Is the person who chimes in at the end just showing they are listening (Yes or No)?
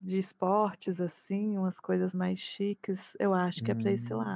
Yes